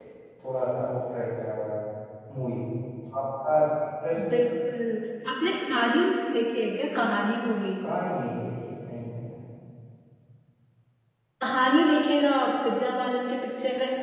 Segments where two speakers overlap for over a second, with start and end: none

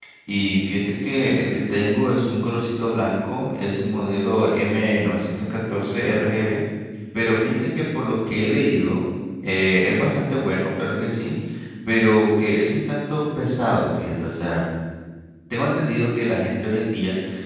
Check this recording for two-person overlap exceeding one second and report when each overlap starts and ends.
none

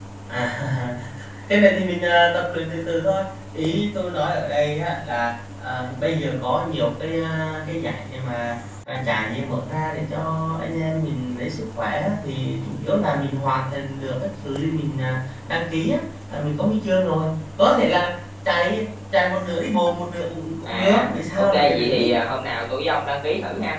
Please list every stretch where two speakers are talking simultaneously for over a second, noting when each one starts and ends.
20.6-22.1

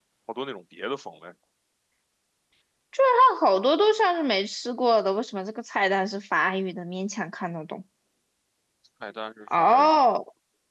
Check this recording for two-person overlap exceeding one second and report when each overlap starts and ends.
none

